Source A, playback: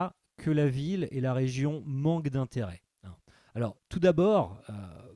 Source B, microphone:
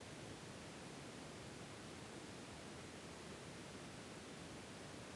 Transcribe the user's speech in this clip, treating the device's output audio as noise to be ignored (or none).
none